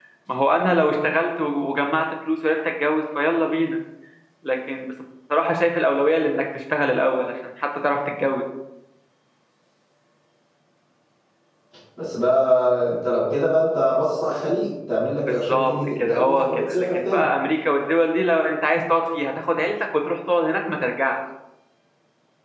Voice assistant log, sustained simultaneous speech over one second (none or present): present